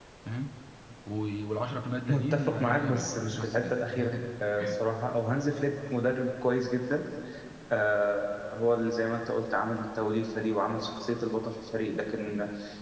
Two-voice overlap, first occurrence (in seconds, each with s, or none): 2.0 s